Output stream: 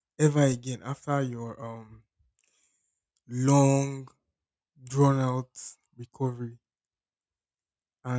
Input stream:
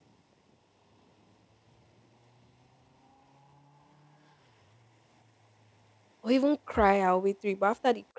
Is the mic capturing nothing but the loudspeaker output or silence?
No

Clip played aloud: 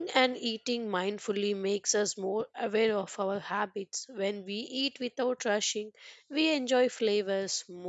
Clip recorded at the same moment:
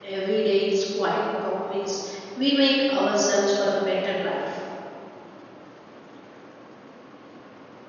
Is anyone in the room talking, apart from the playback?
Yes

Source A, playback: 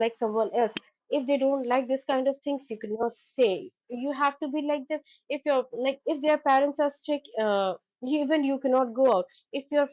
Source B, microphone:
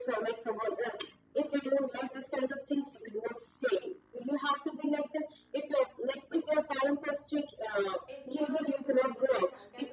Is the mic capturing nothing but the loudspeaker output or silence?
No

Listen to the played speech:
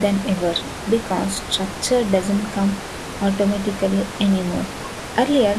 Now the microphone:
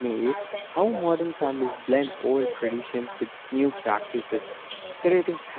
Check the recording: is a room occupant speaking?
Yes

